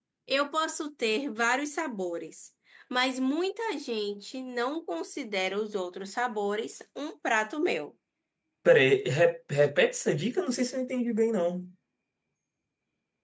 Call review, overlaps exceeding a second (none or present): none